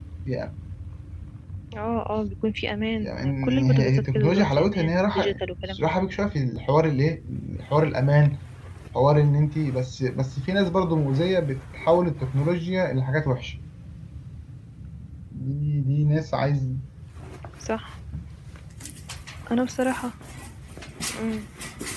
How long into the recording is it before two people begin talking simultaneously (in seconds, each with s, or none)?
3.0 s